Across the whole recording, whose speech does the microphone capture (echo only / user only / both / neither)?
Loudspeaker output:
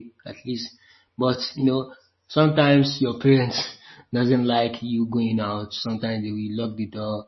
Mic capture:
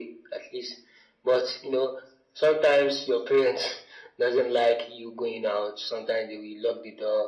echo only